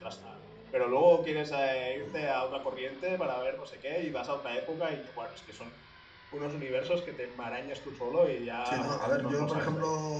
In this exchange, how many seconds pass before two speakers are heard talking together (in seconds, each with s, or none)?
8.6 s